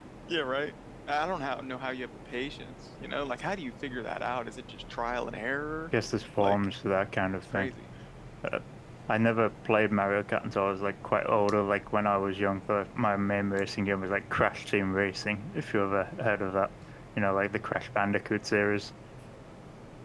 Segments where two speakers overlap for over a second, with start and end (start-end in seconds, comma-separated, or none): none